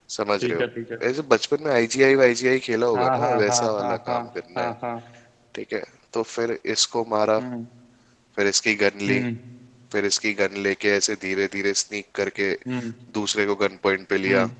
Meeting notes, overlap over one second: present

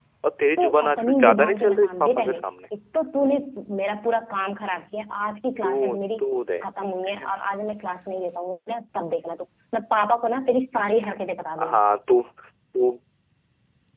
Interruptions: present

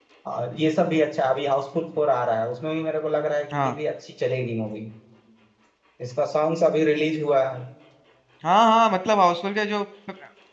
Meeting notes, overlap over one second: none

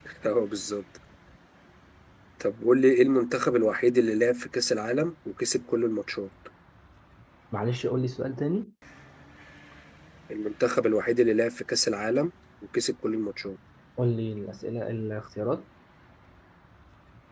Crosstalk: none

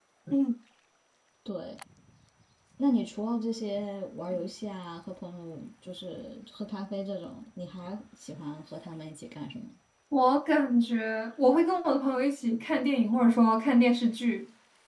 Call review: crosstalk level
none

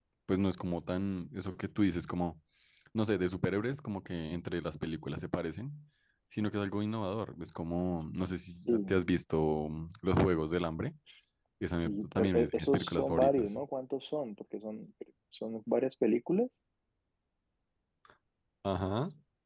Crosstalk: present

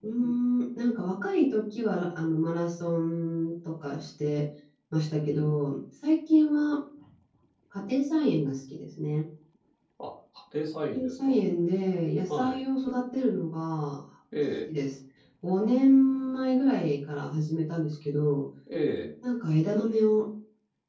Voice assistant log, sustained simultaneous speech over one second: none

